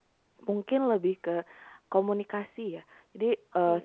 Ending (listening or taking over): listening